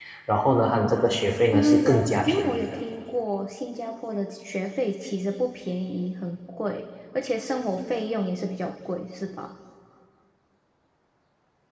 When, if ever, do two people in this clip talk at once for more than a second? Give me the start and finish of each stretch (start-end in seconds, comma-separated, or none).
1.5-2.8